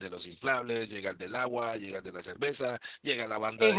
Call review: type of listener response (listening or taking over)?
listening